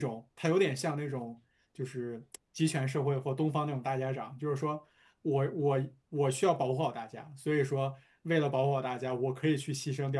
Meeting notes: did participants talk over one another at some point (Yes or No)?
No